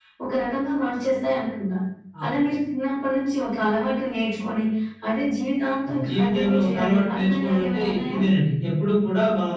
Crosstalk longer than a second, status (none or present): present